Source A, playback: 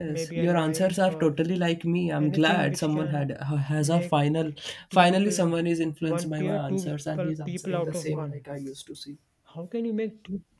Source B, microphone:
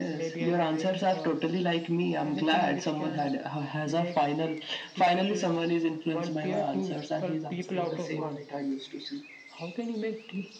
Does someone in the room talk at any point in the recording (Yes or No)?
No